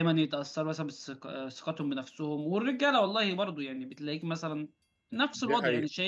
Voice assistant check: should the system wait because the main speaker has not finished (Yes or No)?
Yes